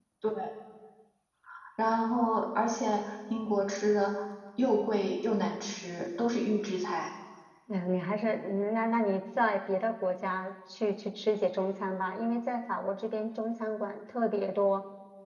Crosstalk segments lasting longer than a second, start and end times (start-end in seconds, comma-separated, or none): none